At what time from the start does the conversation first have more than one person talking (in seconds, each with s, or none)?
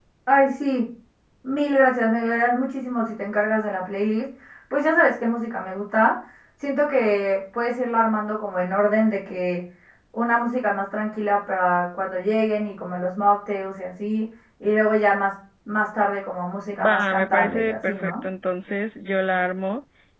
16.7 s